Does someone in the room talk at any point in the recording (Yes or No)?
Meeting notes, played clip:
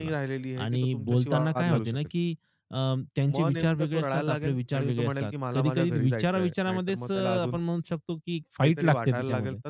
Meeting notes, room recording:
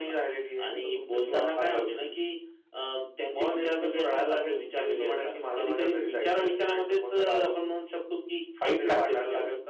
No